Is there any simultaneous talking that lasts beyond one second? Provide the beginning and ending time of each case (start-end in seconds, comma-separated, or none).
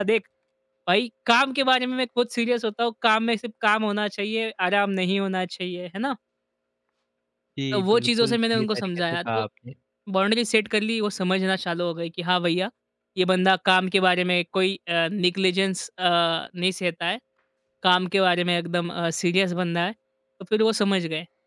7.7-9.4